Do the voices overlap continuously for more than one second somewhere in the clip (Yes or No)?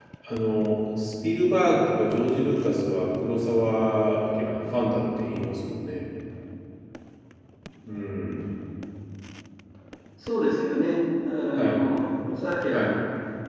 No